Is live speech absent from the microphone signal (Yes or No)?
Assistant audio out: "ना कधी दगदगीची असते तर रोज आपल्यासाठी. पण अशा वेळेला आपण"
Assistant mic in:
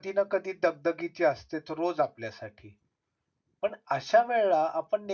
Yes